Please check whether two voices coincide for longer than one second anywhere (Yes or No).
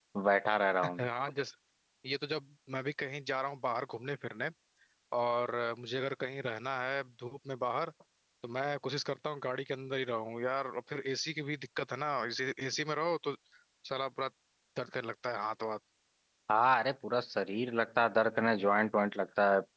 No